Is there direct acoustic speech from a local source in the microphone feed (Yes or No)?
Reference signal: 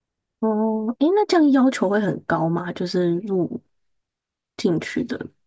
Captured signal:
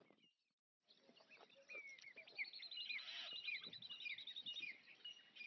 No